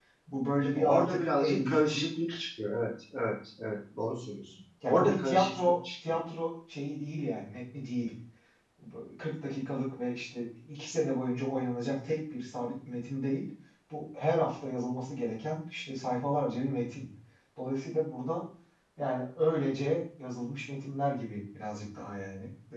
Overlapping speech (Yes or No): Yes